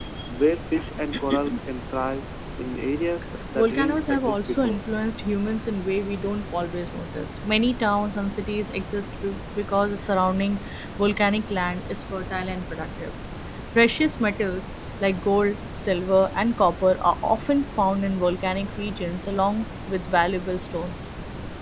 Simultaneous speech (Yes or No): Yes